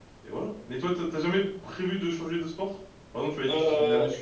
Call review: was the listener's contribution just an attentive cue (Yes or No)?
Yes